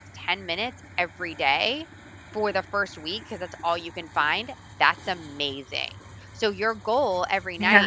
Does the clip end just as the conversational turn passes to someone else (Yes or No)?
No